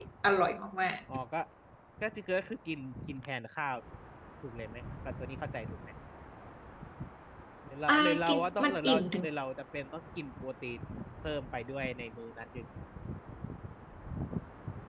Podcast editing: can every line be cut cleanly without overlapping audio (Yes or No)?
No